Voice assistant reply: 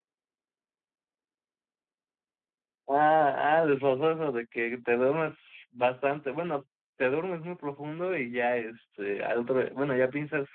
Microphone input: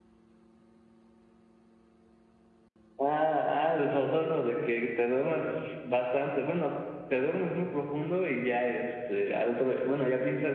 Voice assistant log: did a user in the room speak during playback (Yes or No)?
No